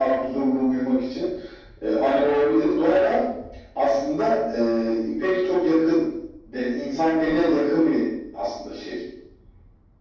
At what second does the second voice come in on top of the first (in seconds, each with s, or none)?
none